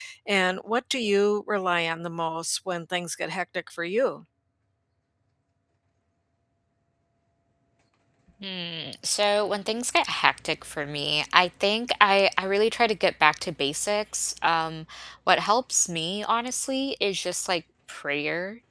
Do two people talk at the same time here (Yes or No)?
No